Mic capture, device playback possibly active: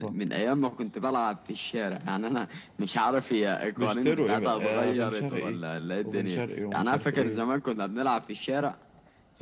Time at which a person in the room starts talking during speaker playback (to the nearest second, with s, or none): none